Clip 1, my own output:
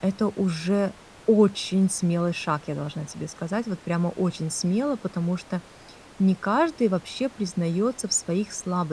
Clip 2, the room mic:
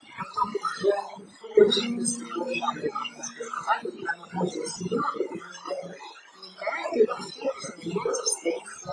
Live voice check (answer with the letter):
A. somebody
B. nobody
A